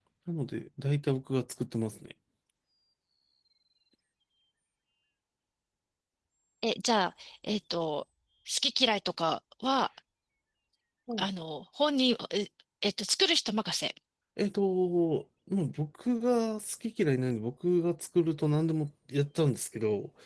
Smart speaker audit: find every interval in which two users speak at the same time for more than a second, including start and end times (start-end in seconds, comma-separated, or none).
none